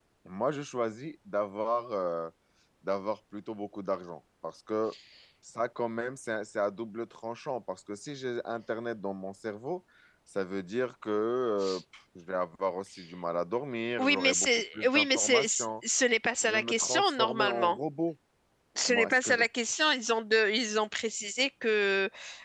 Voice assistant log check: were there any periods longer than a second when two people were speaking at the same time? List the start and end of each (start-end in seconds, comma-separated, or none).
14.0-15.7, 16.4-17.8